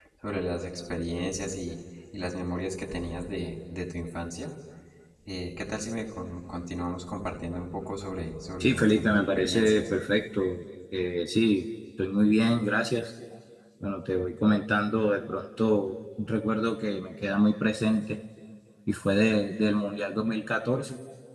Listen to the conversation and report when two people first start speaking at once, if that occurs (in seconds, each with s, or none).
8.6 s